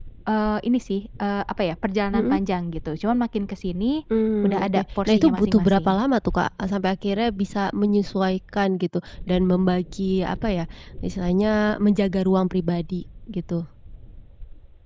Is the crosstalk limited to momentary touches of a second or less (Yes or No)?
No